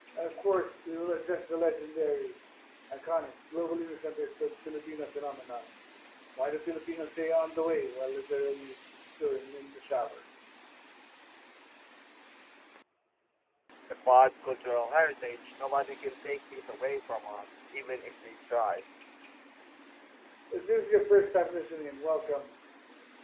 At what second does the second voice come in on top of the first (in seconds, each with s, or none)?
none